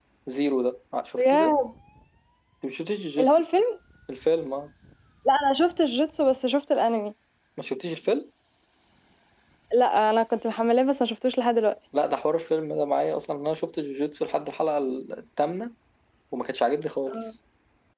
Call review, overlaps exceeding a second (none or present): none